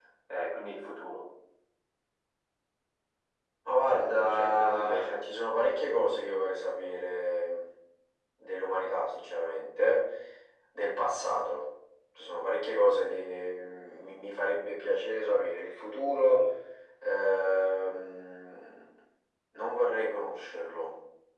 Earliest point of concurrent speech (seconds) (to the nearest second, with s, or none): 4 s